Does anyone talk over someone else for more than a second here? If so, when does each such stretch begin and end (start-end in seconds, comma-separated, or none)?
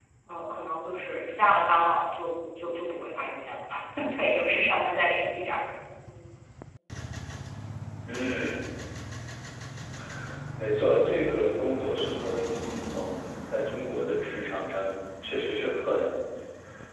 none